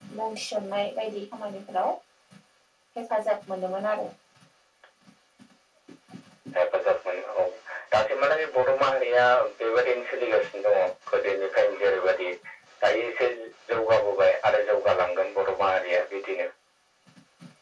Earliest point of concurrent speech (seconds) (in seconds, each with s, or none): none